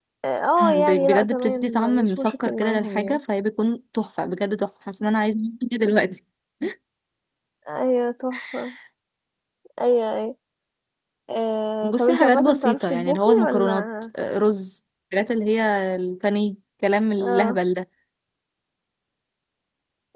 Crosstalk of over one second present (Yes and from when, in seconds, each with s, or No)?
Yes, from 0.6 s